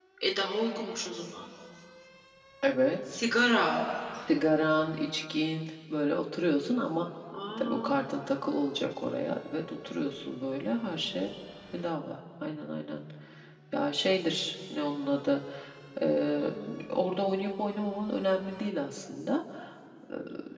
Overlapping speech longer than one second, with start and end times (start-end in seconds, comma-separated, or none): none